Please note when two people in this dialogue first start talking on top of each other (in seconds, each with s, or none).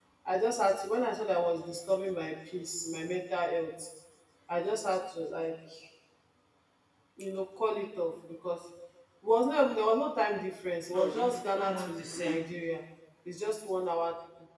10.9 s